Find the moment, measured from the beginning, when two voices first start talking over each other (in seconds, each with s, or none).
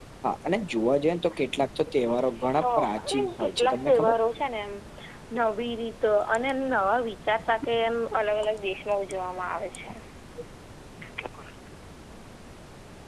2.5 s